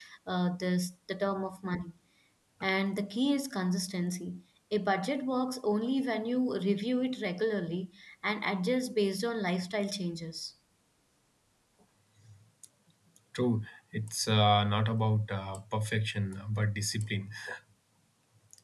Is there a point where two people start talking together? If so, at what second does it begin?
none

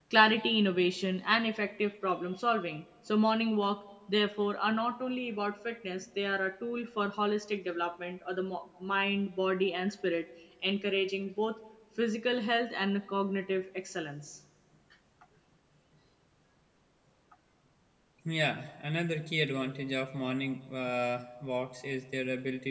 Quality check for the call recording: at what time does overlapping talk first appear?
none

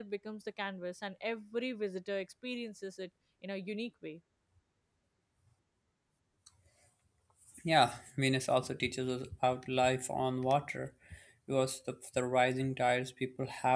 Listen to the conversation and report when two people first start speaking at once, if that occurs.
none

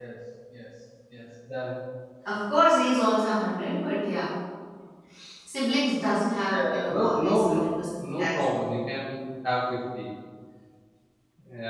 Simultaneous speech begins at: 6.4 s

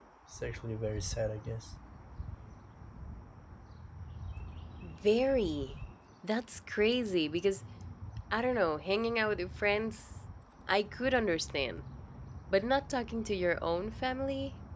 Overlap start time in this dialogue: none

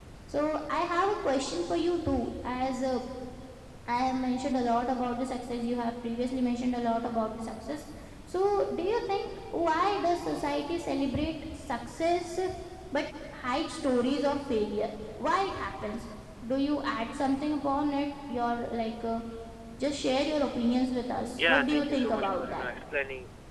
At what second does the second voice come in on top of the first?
21.4 s

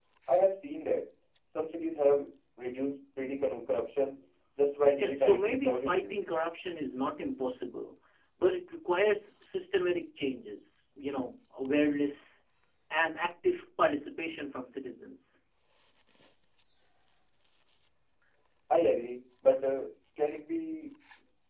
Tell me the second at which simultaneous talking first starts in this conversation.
5.0 s

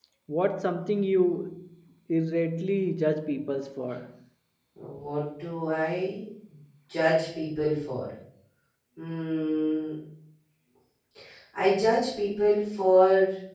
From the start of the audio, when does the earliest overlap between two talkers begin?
none

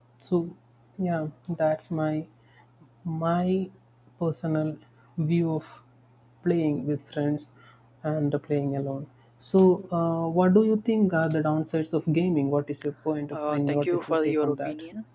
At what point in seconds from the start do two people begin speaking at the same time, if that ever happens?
13.3 s

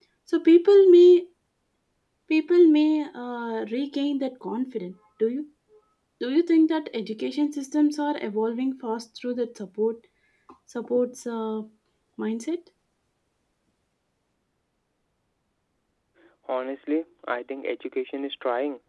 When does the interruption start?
none

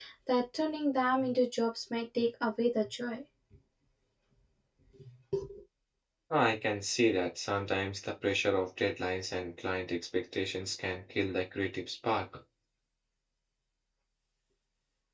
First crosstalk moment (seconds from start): none

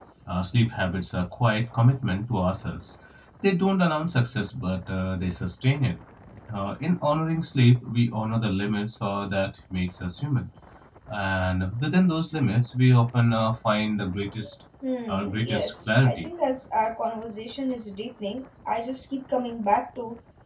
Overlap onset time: 15.1 s

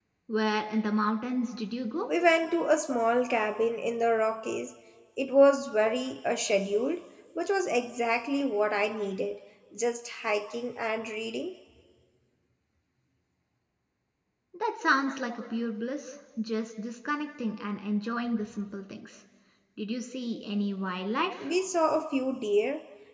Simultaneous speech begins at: none

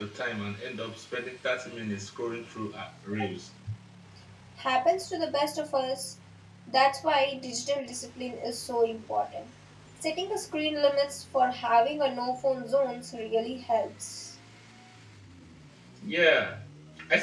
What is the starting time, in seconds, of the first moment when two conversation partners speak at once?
none

